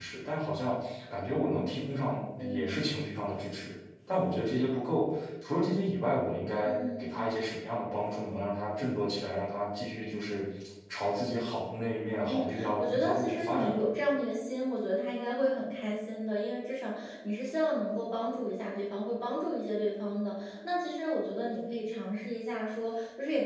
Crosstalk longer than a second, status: present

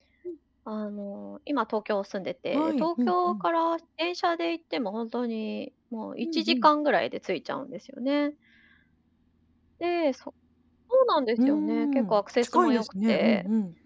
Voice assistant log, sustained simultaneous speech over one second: present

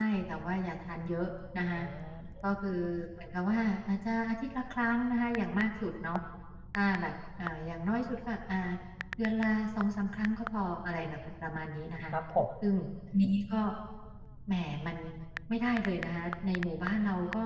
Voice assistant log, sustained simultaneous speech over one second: none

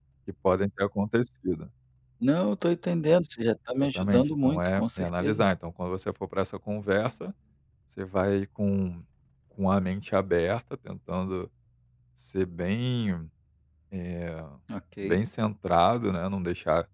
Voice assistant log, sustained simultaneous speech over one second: present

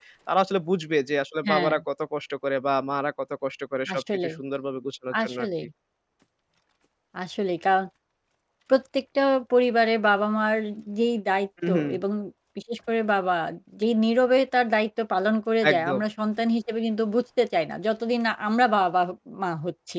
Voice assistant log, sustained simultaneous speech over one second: none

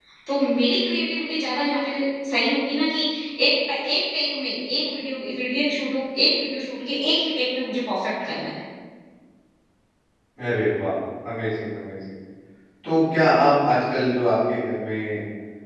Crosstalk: none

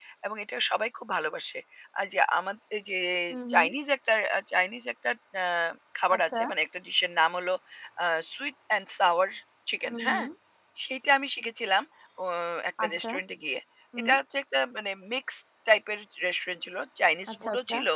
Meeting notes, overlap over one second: none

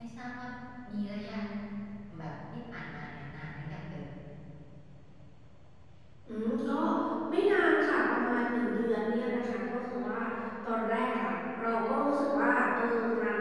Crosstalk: none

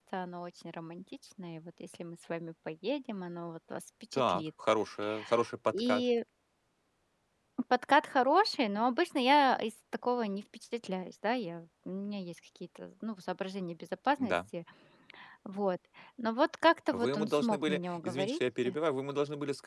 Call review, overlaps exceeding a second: present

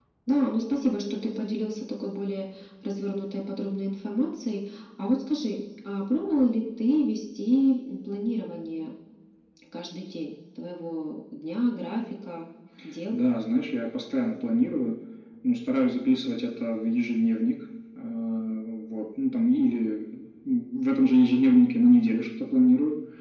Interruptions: none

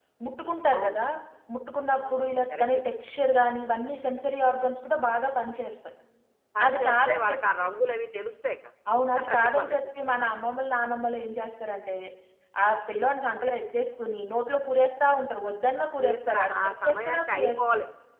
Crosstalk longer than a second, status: present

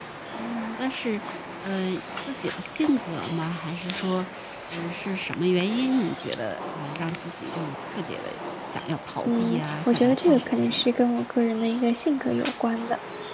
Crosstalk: present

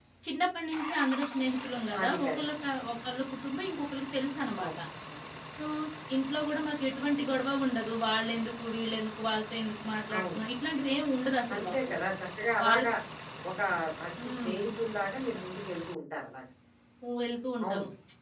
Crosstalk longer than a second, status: none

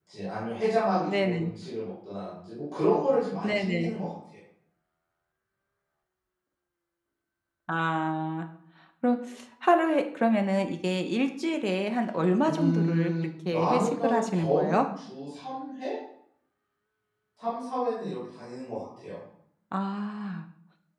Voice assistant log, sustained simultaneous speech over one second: present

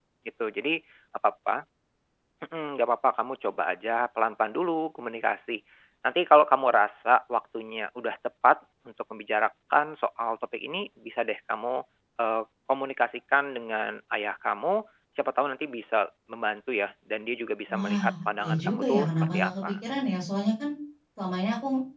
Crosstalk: present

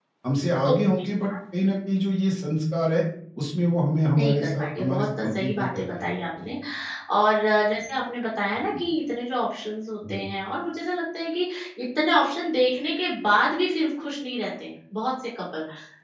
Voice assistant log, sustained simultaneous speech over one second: present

